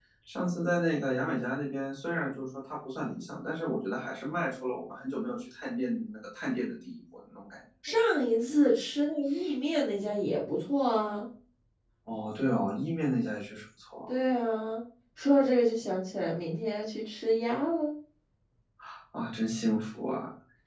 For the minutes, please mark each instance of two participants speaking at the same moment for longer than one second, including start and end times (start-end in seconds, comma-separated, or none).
none